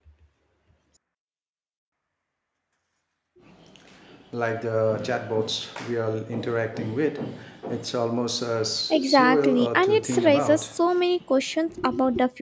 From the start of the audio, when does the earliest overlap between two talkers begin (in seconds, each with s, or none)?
8.9 s